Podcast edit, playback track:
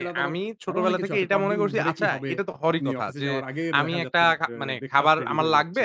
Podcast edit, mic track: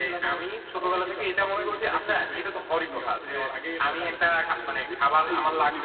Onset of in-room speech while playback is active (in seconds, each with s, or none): 4.8 s